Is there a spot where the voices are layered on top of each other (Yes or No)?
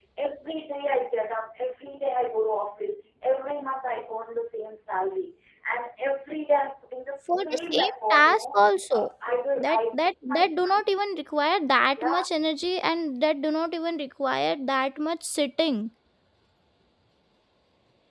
Yes